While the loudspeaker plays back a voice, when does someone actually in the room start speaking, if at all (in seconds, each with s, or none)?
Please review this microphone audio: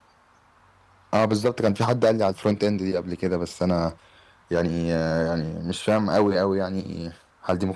1.1 s